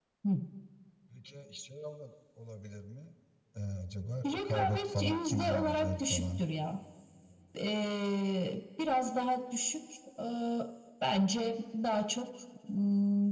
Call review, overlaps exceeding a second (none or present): present